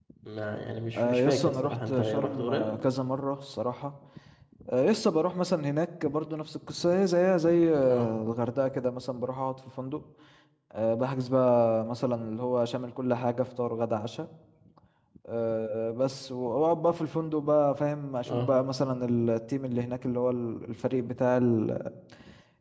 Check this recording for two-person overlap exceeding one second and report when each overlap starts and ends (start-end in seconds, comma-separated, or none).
1.0-2.7